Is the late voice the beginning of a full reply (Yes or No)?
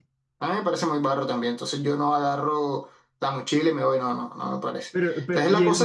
Yes